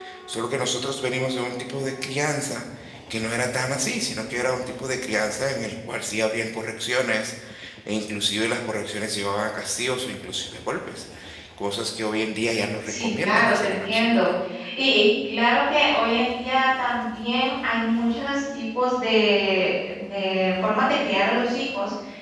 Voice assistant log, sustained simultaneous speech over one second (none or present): present